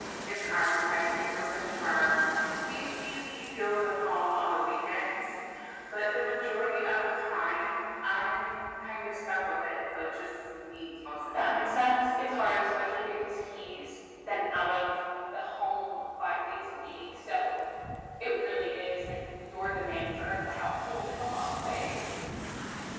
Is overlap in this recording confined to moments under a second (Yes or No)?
Yes